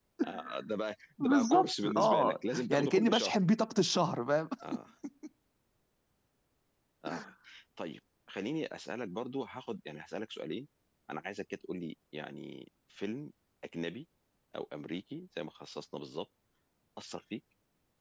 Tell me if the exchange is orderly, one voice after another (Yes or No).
No